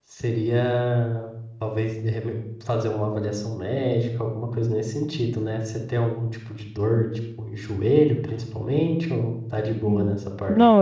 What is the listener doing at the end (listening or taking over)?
taking over